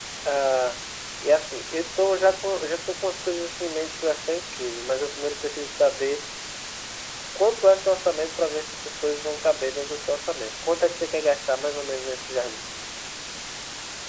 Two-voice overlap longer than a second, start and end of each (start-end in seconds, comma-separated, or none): none